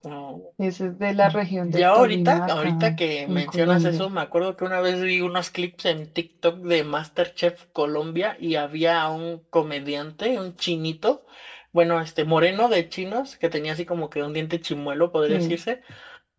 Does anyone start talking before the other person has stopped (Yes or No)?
Yes